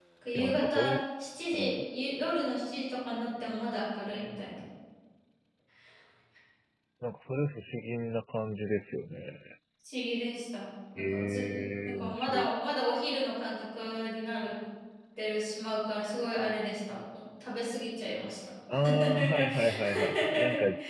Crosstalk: present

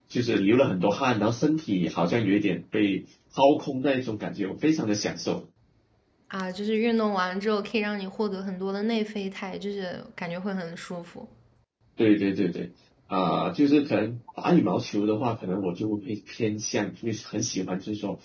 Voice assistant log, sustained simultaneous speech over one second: none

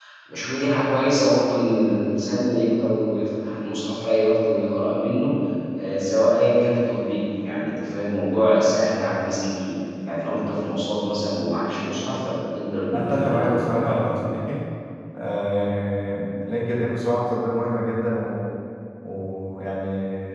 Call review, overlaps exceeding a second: present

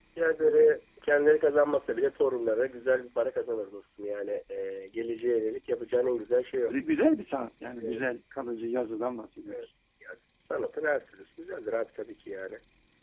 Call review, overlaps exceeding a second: none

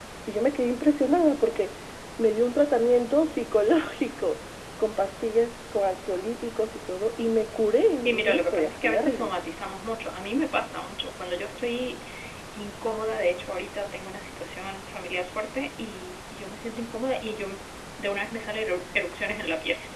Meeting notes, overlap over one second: present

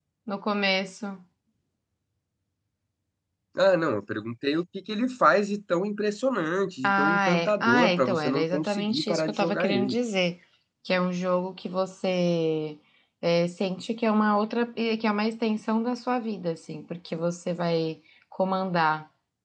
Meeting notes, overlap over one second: present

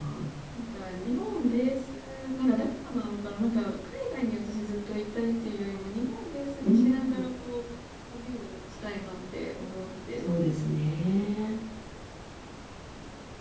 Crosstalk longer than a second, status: none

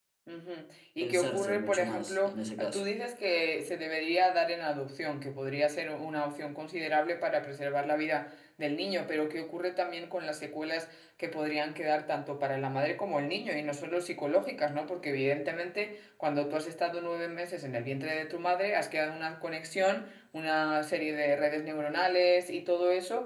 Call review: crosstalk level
present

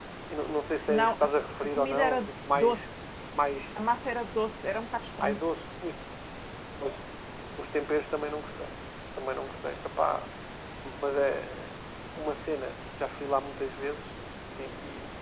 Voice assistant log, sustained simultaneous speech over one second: present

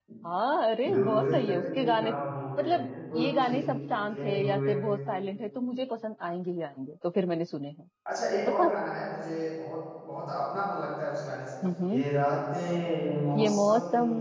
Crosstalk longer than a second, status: present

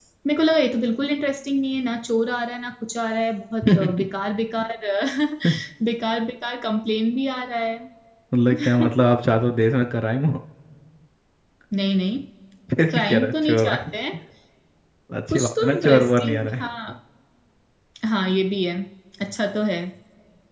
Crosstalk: present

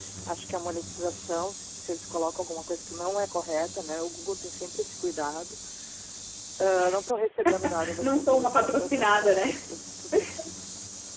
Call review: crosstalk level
present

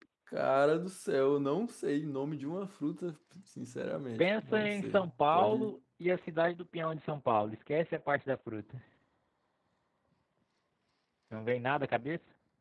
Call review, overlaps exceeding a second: present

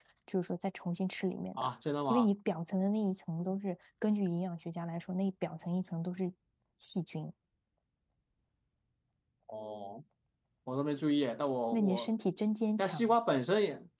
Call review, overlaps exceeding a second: none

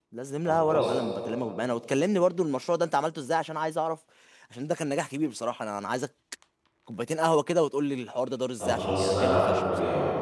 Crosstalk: present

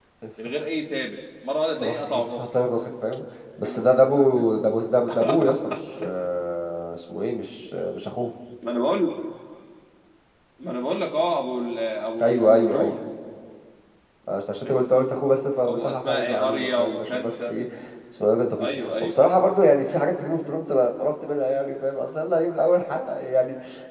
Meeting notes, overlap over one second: present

